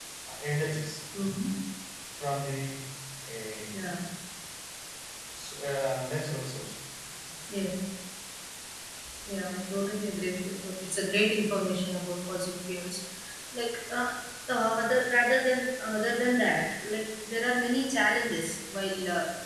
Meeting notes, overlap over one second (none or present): none